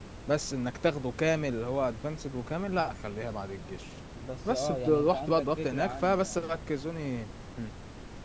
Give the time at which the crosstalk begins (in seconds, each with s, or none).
4.4 s